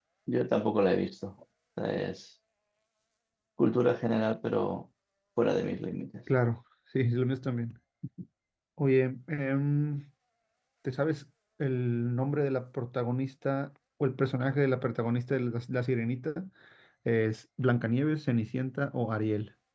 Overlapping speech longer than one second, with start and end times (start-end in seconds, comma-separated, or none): none